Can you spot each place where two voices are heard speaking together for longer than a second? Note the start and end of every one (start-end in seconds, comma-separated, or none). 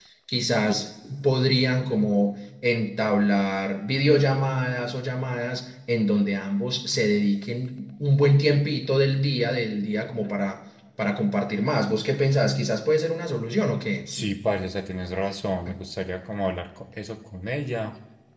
none